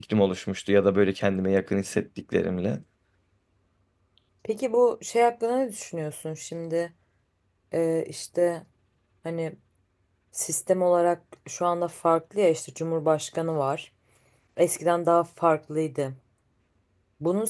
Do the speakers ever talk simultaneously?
No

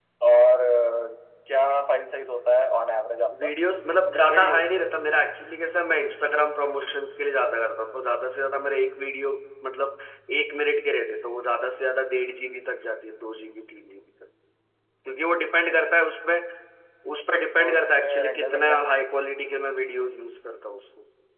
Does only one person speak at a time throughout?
No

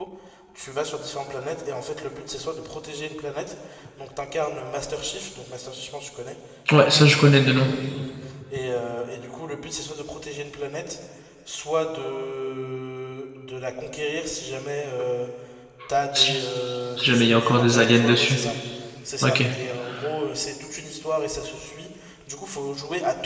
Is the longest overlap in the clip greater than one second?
Yes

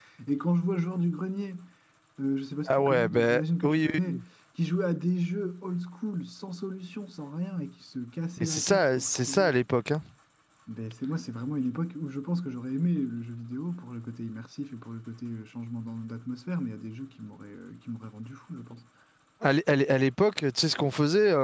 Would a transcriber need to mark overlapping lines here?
Yes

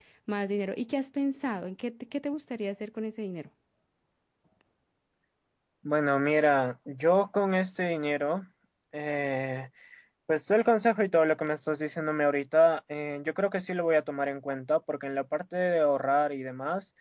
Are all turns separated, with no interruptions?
Yes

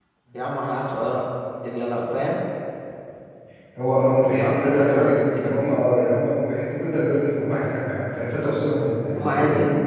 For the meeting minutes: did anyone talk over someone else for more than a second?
Yes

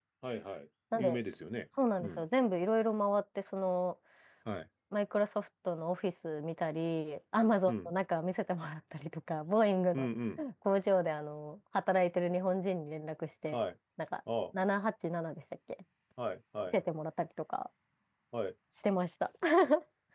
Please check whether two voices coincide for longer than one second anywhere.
No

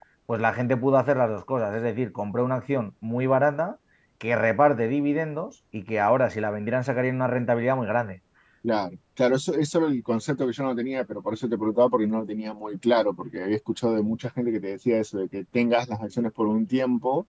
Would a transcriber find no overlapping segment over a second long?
Yes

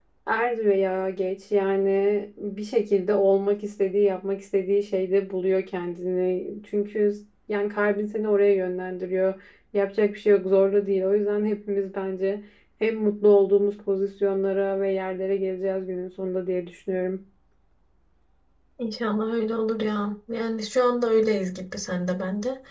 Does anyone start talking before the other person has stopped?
No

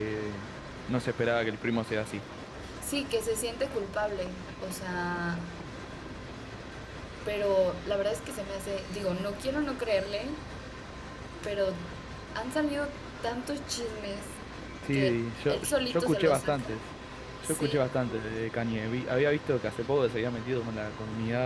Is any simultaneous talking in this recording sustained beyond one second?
Yes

